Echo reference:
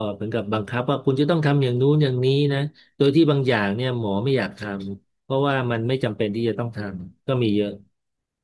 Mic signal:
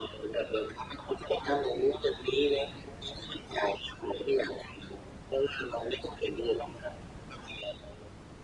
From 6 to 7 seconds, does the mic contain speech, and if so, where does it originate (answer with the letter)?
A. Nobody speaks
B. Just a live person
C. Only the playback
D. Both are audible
C